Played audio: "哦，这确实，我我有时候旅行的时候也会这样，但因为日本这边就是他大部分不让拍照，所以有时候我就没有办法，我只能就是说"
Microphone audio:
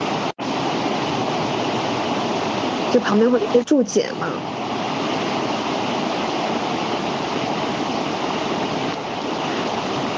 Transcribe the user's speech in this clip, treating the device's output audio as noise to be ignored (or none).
就旁边会有一些注解嘛，